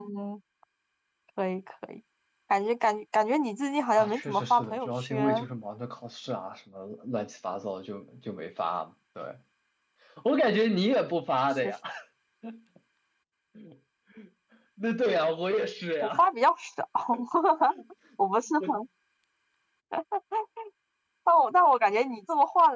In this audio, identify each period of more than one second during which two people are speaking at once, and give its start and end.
4.0-5.5

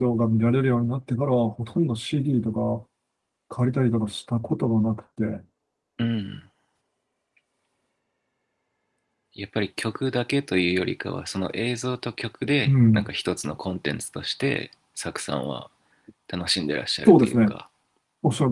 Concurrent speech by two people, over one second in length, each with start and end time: none

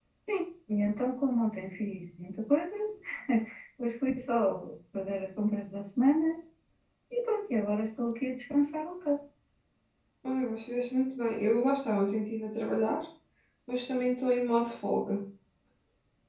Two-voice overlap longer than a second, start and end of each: none

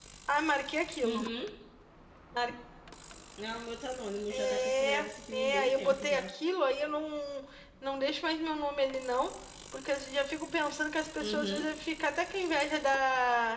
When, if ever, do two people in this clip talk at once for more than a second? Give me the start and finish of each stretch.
4.3-6.3

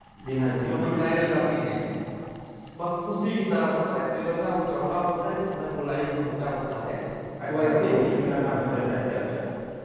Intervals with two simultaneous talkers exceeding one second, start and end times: 7.6-9.0

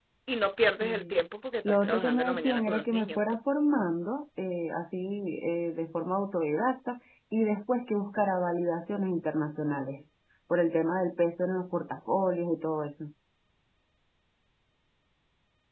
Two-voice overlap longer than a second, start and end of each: 1.6-3.2

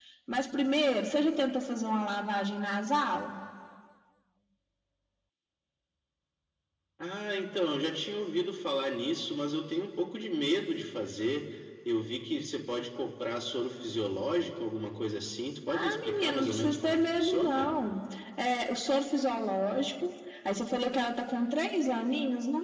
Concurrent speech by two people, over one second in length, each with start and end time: 15.7-17.8

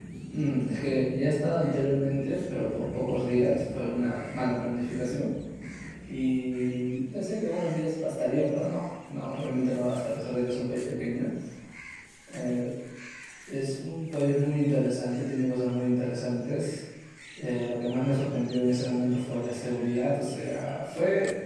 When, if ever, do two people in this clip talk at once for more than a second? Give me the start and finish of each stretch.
none

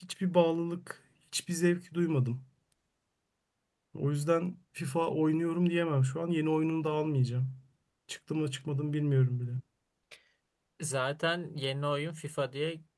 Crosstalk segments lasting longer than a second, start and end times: none

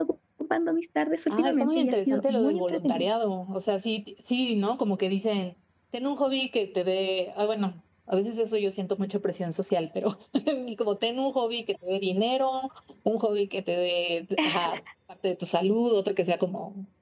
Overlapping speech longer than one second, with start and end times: 1.3-3.1

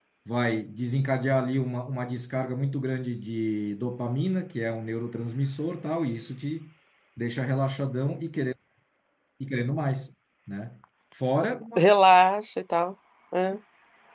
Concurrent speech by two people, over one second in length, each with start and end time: none

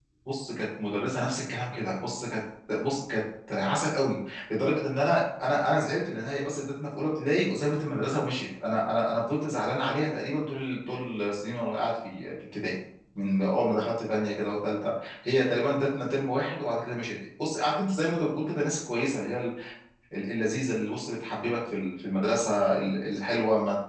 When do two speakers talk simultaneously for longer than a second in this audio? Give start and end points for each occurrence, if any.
none

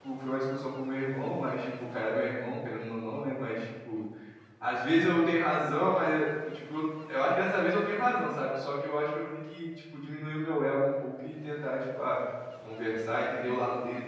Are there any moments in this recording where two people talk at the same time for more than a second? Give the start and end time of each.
none

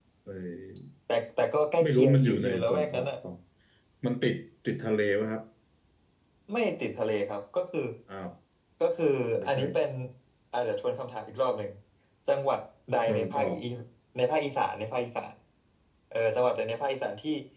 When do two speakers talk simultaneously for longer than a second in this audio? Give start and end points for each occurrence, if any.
1.8-3.1

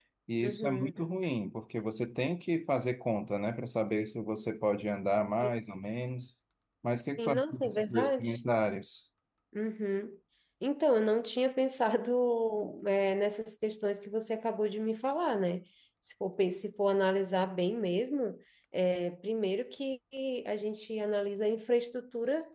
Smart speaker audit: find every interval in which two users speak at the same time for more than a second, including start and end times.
7.2-8.4

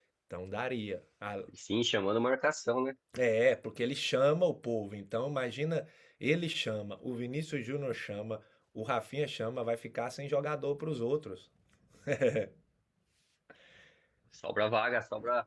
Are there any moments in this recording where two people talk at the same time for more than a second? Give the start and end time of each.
none

